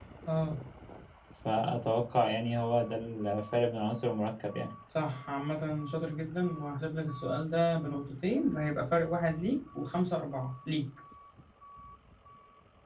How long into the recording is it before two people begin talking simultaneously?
none

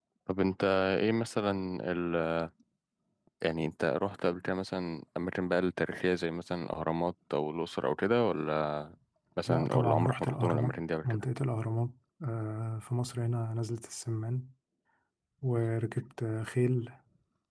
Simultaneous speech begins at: 9.5 s

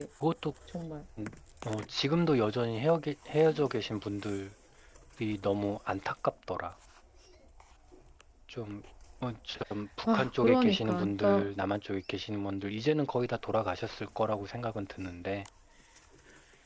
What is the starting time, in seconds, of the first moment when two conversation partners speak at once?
10.1 s

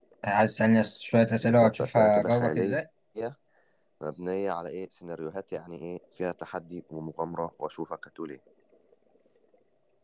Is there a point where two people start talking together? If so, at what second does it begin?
1.4 s

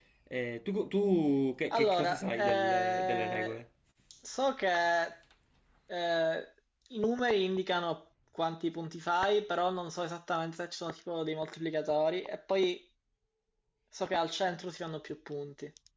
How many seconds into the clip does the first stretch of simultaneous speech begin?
1.7 s

